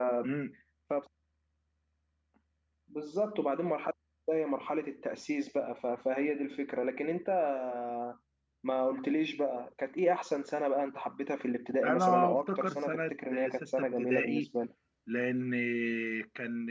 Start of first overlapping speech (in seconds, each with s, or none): 11.8 s